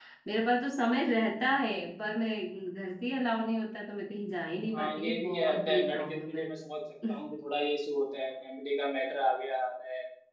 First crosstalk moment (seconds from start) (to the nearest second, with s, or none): 5 s